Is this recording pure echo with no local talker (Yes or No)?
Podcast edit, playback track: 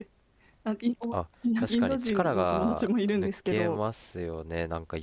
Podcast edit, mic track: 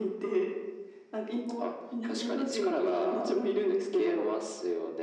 Yes